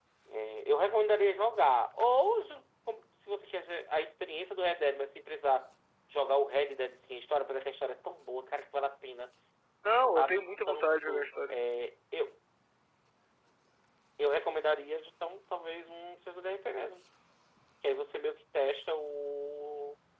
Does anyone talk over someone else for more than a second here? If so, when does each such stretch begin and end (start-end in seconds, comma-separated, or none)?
10.2-11.6